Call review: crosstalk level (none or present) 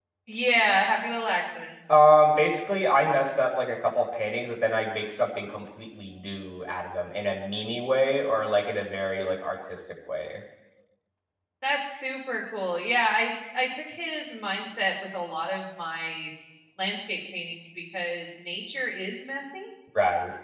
none